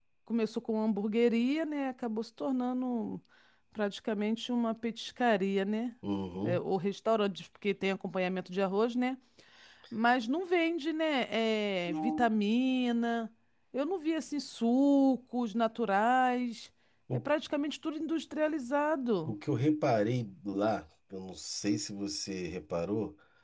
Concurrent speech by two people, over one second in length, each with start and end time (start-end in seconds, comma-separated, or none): none